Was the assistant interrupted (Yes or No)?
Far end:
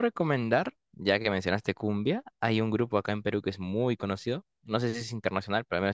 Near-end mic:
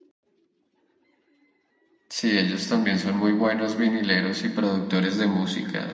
Yes